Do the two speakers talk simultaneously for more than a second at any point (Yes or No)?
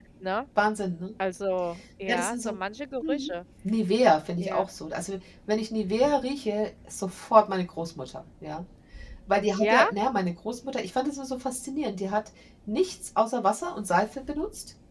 No